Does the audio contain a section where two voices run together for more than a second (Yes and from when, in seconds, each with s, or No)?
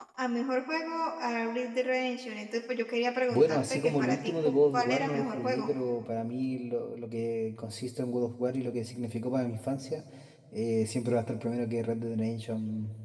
Yes, from 3.3 s